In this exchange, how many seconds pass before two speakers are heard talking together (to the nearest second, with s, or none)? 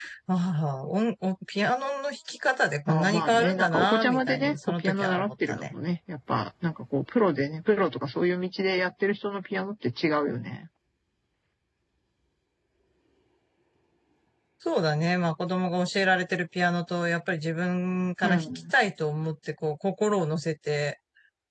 3 s